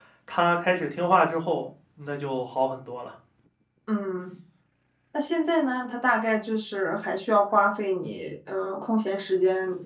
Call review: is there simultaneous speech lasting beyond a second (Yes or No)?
No